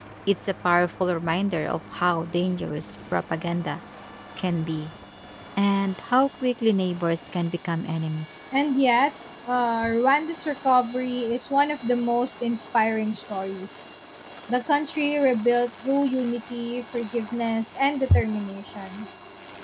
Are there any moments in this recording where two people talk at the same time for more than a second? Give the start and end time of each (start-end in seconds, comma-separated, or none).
none